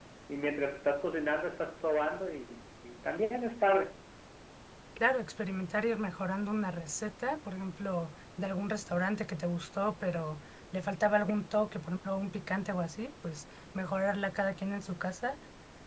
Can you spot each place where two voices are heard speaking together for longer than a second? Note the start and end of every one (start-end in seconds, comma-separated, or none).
none